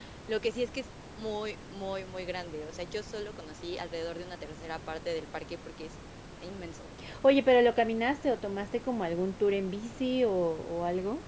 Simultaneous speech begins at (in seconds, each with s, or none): none